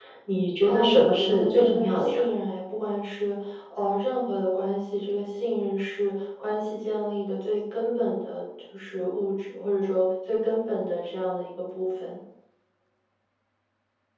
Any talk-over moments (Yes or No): Yes